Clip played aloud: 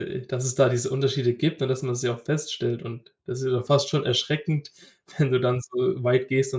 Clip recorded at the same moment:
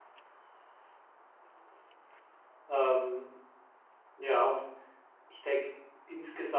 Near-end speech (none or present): present